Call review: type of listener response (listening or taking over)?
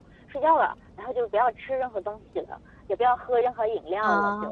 taking over